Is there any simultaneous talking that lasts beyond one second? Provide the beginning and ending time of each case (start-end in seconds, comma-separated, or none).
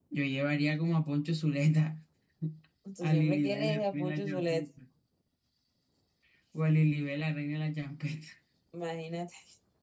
3.0-4.6